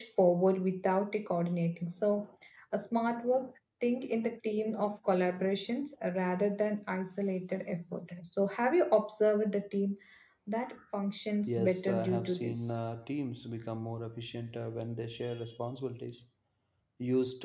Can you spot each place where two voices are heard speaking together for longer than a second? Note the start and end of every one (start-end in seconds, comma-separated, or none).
11.5-12.8